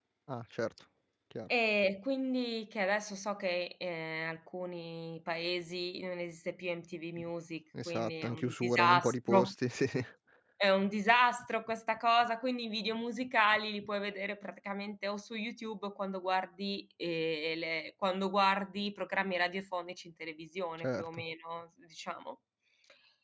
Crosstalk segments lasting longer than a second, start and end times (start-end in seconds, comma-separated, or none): 7.8-9.5